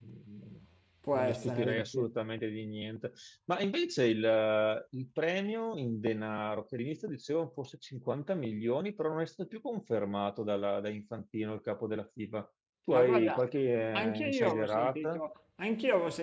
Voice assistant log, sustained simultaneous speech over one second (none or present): present